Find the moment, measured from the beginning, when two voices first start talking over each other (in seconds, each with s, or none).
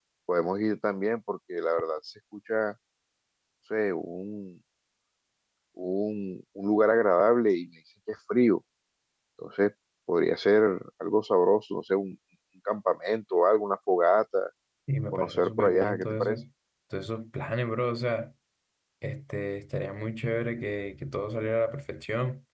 15.1 s